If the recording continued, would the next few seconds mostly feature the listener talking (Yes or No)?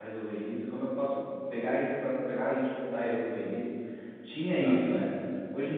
No